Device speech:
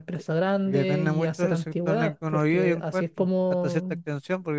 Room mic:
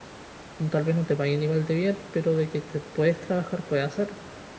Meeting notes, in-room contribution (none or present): present